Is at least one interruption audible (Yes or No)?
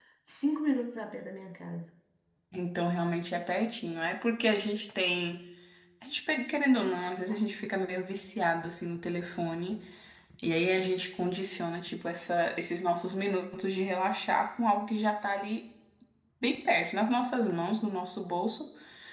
No